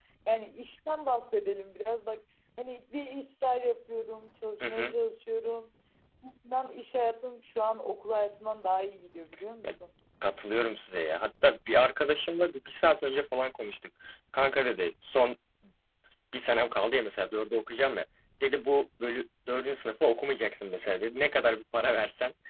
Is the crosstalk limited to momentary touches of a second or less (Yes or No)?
Yes